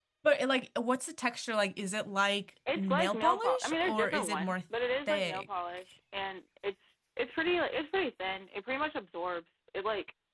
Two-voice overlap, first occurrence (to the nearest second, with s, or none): 3 s